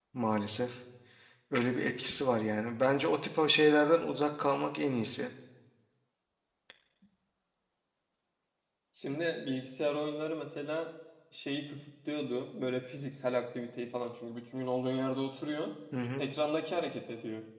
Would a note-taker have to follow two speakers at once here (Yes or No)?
No